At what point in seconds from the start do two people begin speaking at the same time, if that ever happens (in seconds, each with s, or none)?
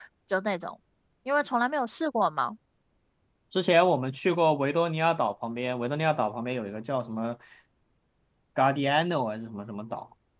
none